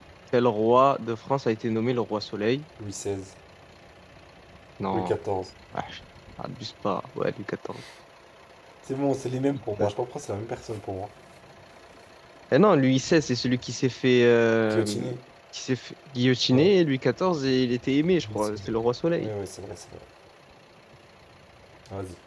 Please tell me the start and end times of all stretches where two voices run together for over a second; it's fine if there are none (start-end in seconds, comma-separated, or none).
none